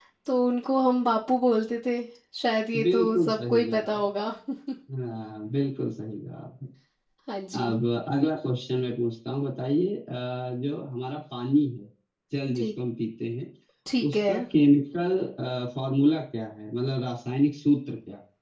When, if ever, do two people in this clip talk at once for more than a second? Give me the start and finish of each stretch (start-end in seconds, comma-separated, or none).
2.8-4.0